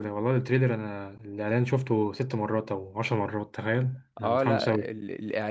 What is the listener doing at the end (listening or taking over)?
taking over